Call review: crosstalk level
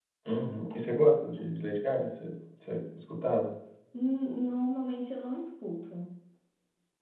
none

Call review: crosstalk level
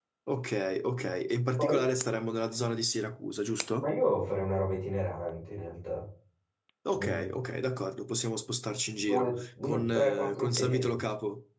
present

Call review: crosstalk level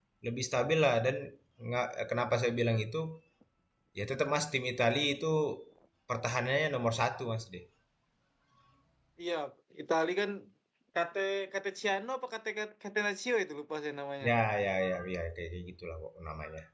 none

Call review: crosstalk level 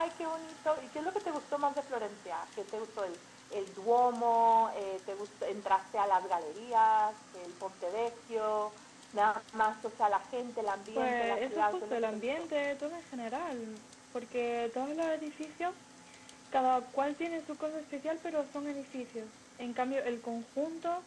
present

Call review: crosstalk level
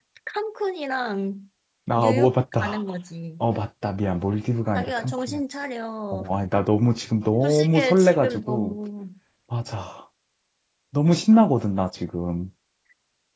present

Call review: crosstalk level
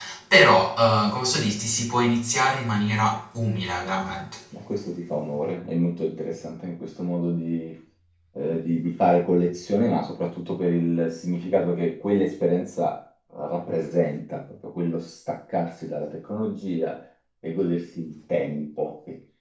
none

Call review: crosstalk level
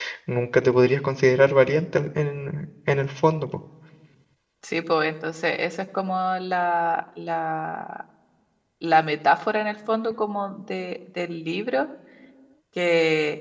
none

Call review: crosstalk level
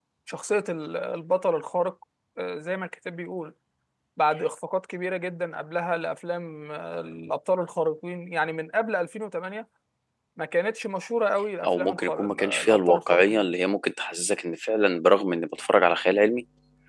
present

